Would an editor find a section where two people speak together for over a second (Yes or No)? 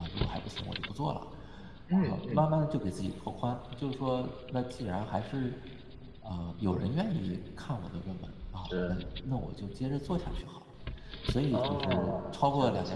Yes